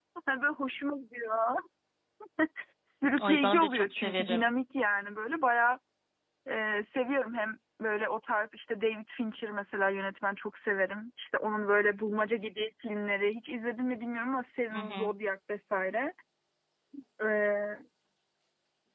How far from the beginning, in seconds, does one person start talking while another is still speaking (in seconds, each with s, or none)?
3.2 s